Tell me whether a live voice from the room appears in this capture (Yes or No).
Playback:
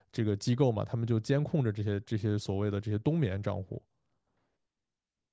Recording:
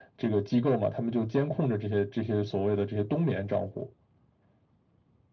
No